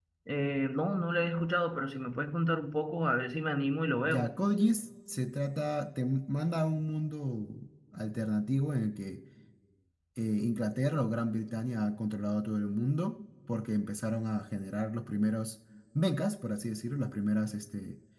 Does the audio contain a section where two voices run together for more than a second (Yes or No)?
No